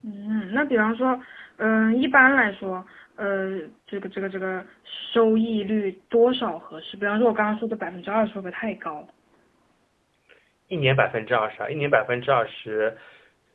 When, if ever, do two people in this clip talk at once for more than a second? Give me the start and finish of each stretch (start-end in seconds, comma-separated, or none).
none